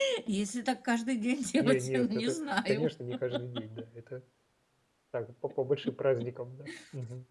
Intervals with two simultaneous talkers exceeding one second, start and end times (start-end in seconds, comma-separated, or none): 1.6-2.9